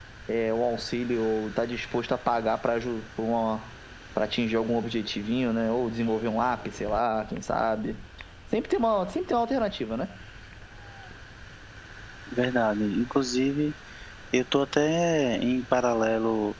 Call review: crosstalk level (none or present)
none